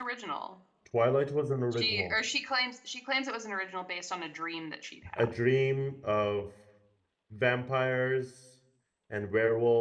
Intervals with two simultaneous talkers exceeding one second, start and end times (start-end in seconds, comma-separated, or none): none